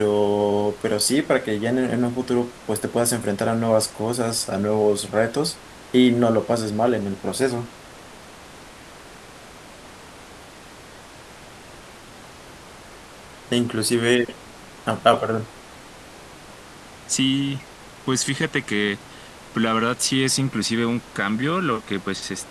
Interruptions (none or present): none